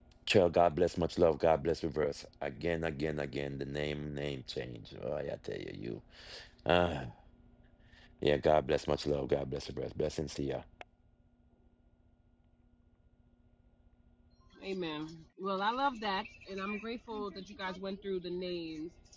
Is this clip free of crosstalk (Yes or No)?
Yes